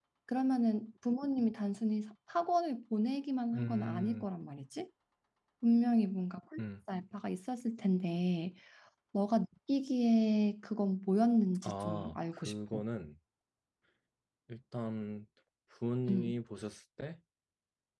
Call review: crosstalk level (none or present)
present